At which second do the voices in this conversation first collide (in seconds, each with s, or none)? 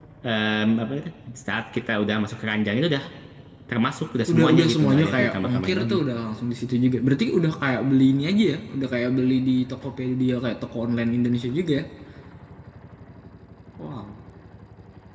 4.3 s